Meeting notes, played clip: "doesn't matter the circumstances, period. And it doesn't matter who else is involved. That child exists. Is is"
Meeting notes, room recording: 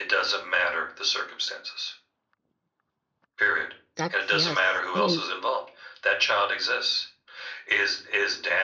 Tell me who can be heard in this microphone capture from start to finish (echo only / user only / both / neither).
both